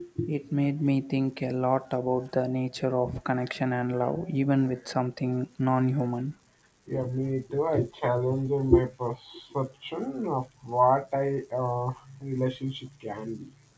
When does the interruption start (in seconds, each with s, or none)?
none